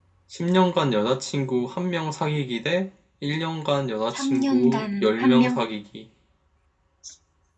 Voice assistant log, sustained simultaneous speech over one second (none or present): present